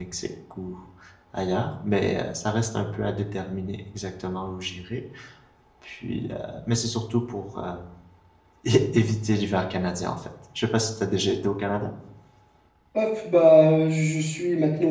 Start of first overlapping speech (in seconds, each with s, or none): none